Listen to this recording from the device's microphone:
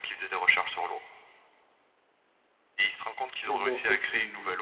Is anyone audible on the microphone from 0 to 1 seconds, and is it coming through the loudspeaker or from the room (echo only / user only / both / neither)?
echo only